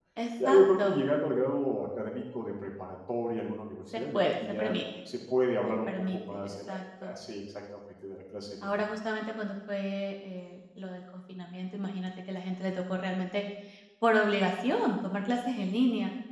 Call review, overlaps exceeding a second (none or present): present